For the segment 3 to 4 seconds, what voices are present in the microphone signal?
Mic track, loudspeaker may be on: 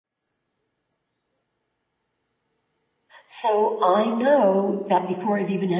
user only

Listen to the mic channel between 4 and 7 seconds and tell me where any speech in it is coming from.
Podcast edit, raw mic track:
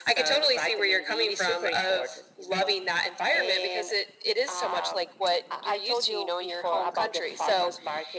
echo only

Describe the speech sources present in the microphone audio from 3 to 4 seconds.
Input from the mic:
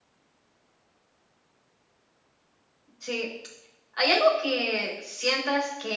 user only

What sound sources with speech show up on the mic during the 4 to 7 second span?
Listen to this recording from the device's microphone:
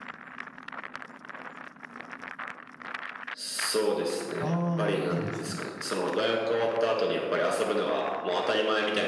both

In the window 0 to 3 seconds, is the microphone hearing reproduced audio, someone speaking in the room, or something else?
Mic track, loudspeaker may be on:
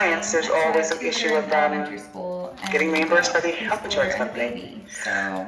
both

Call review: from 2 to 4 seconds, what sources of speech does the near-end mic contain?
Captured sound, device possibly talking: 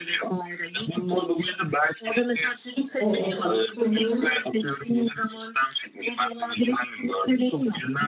both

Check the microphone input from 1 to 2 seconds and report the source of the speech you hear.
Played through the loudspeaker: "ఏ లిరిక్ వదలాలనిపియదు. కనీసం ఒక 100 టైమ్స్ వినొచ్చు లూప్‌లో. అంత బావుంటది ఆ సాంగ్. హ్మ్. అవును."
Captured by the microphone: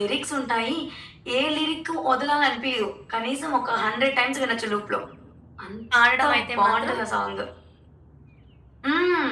echo only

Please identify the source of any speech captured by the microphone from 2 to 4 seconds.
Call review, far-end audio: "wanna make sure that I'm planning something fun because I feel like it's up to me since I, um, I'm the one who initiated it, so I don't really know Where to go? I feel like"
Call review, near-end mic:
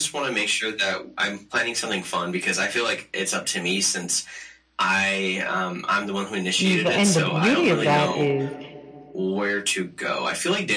echo only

